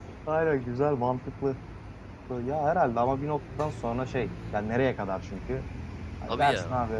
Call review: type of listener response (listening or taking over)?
listening